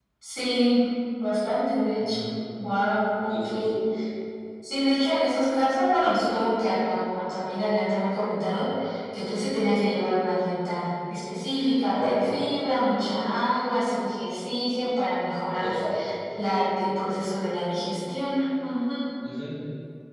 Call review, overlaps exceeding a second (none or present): none